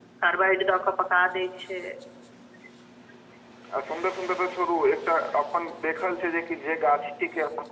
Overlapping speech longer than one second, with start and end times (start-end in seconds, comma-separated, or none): none